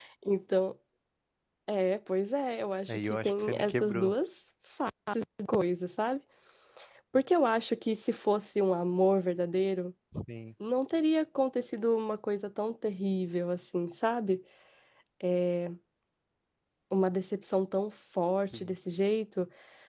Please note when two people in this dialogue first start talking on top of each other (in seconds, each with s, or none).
2.9 s